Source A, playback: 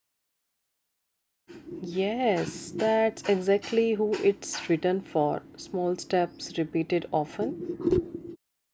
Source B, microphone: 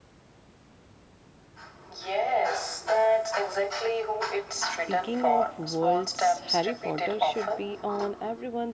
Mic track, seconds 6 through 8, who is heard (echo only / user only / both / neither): both